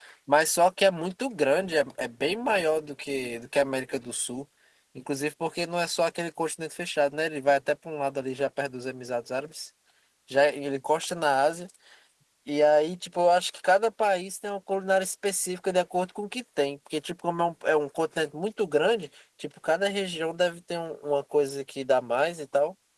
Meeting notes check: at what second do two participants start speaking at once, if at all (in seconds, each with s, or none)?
none